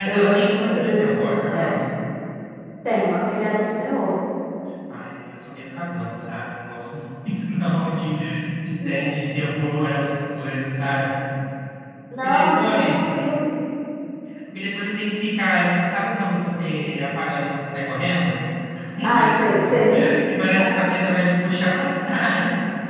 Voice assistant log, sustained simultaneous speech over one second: present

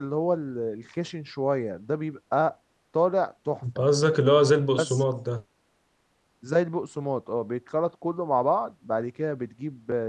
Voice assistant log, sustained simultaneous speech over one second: none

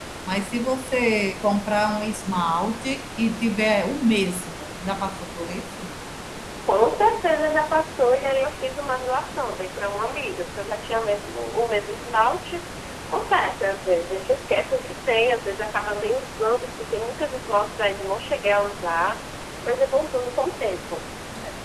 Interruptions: none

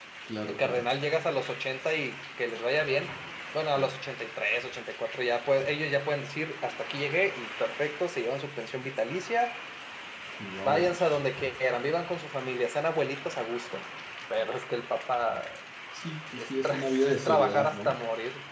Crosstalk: present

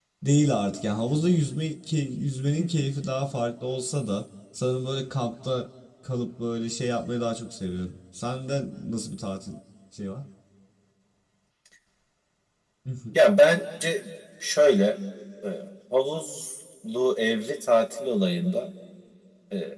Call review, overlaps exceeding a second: none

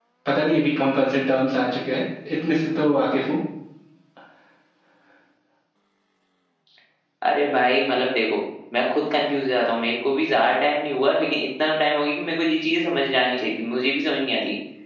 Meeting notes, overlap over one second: none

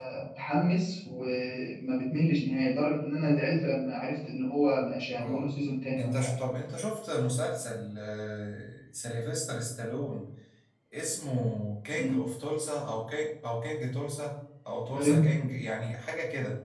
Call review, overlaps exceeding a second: none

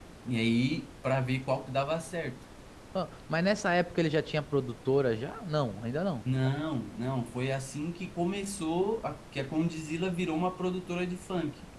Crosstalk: none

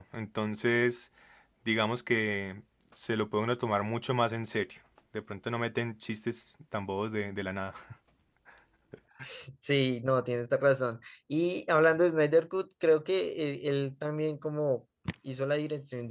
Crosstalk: none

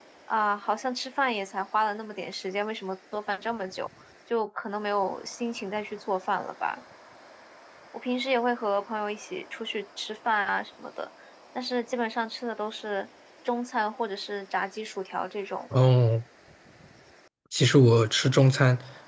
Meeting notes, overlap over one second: none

